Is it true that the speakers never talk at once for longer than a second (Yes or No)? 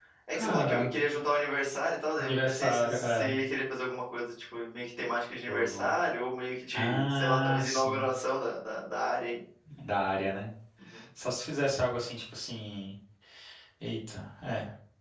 No